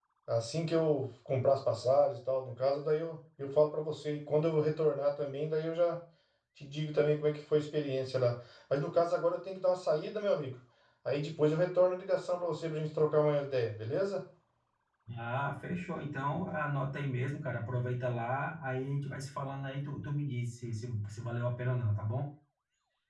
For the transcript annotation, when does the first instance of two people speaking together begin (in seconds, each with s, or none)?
none